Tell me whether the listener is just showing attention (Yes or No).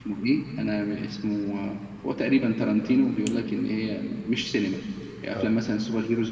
Yes